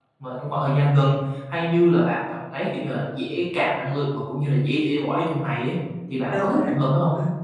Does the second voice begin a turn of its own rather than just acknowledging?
Yes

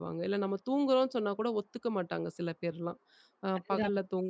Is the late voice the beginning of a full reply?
No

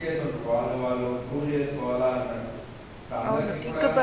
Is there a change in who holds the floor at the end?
Yes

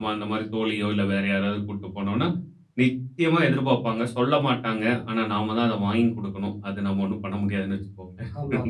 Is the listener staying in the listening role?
No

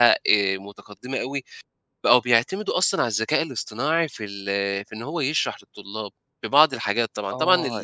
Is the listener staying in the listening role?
No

